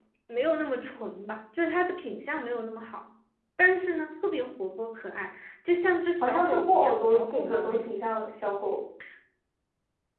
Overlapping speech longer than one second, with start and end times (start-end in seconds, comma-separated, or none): 6.2-7.9